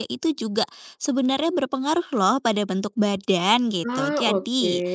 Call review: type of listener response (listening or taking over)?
listening